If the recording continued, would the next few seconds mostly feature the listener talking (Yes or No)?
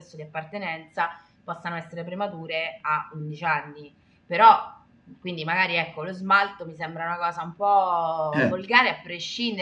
No